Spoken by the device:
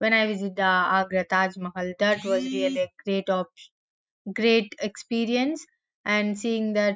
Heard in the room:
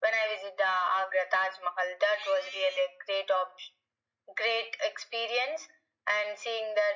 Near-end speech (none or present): none